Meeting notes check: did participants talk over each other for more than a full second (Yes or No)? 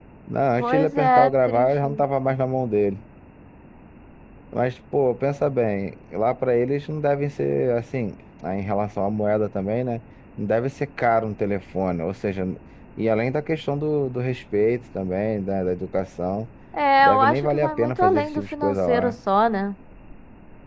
Yes